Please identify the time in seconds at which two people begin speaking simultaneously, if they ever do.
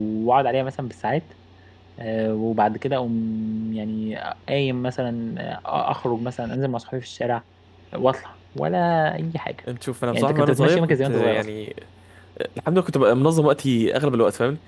10 s

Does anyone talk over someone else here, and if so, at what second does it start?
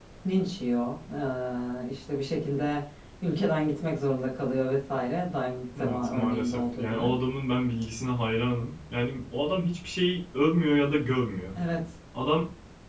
6 s

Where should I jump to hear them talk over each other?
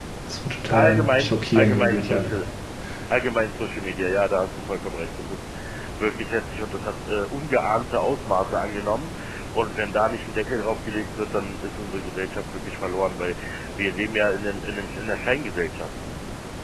1 s

